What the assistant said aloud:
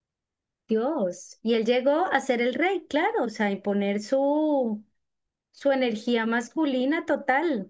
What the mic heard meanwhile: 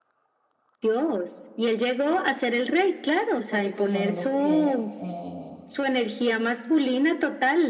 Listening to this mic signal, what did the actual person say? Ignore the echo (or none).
porque pues yo no lo crié, eh,